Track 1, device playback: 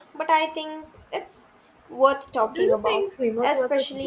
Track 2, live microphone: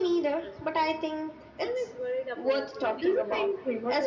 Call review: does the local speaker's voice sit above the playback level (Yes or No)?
No